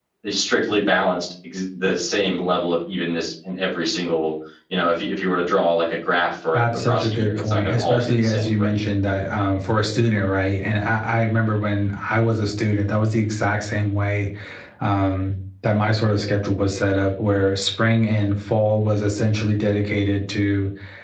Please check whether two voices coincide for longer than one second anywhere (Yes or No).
Yes